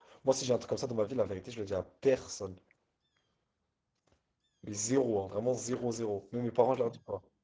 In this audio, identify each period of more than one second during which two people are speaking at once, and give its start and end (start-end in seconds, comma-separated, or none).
none